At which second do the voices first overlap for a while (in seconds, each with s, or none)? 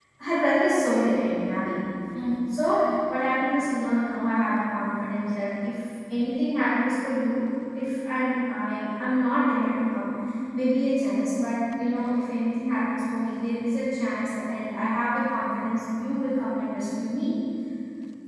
none